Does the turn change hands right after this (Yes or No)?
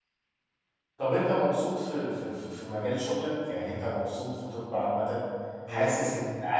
No